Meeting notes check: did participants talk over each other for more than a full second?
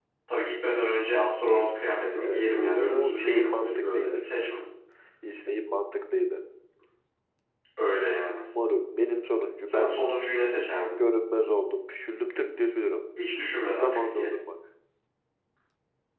Yes, from 2.2 s

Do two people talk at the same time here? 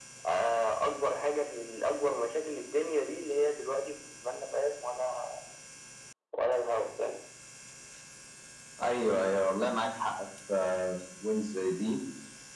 No

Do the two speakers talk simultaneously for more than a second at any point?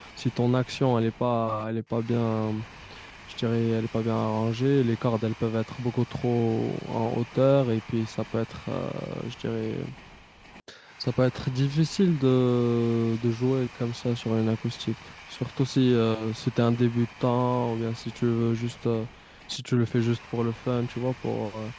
No

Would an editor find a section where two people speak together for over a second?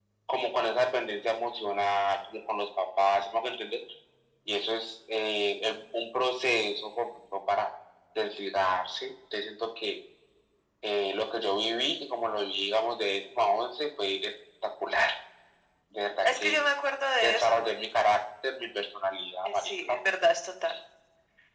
No

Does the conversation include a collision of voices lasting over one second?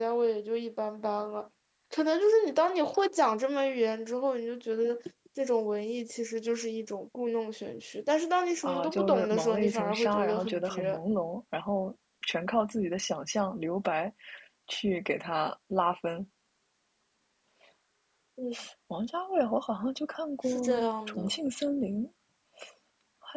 Yes, from 8.6 s

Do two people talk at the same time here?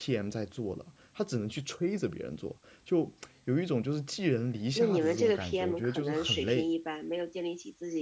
Yes, from 4.8 s

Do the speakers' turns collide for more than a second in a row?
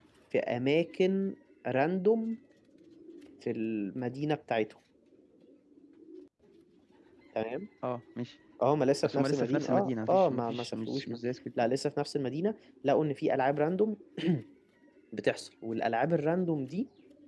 Yes, from 9.0 s

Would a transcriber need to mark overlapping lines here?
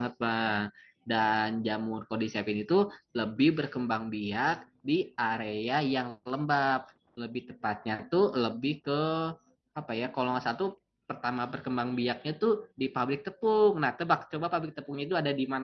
No

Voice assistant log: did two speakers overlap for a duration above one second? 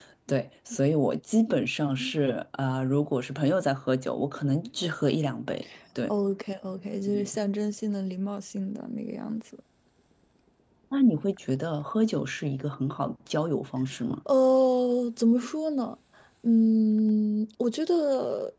No

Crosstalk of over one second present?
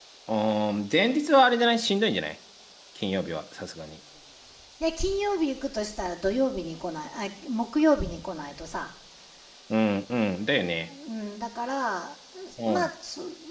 No

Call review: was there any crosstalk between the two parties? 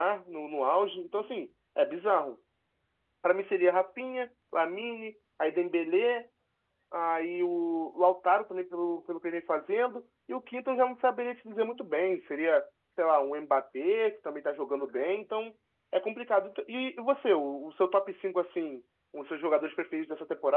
No

